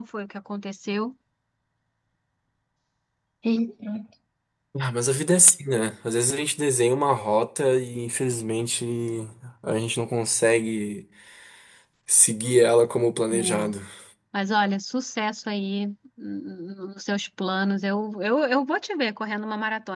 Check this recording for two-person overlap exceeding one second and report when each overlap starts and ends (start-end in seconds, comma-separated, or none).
none